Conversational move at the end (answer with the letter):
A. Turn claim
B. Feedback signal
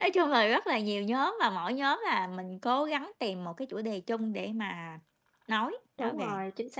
A